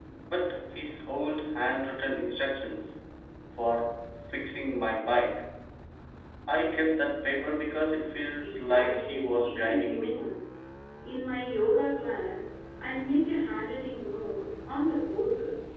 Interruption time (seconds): 8 s

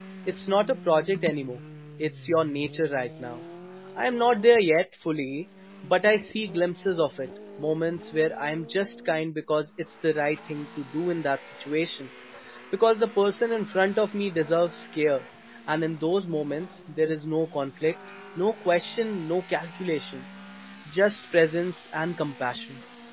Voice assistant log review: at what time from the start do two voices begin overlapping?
none

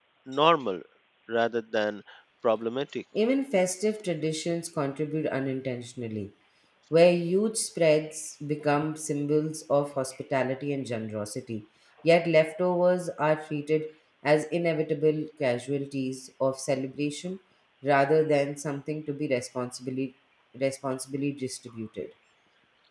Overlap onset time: none

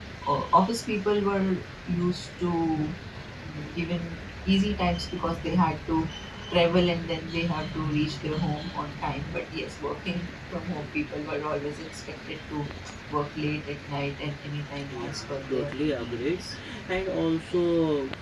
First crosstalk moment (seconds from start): 15 s

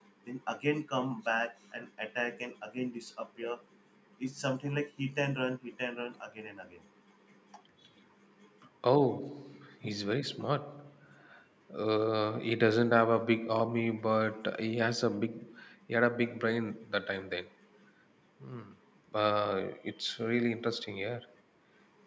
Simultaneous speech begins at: none

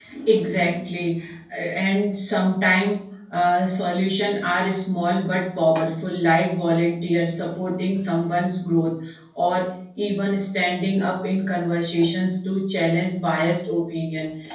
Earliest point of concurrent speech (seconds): none

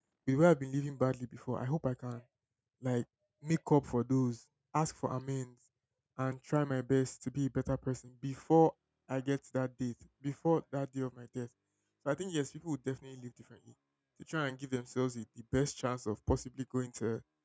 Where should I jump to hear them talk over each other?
none

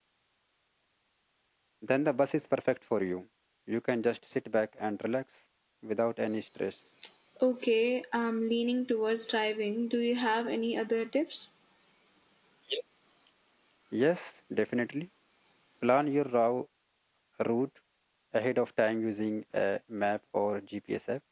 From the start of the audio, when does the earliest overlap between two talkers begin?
none

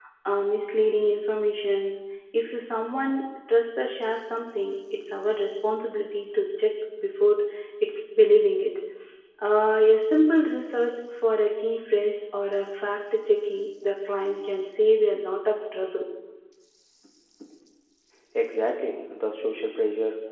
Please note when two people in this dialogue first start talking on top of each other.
none

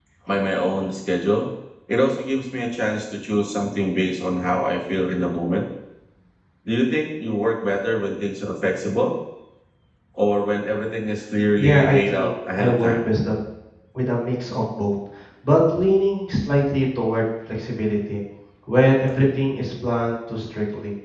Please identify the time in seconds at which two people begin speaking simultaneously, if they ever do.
12 s

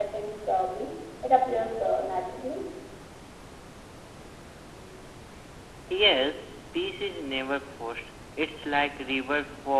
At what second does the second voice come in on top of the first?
none

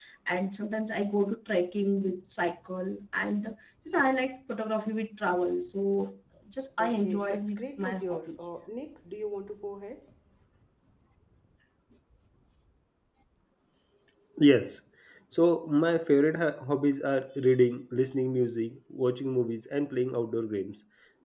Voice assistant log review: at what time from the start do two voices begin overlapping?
7 s

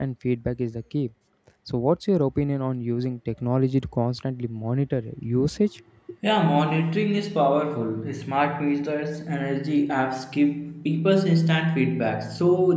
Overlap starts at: none

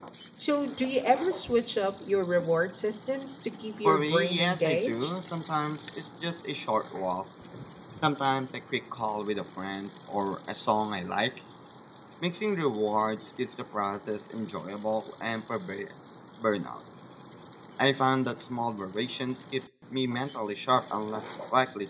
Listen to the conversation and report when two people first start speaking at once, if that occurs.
4 s

